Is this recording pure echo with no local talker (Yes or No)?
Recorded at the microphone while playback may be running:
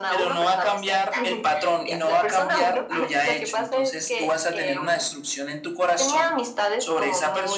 Yes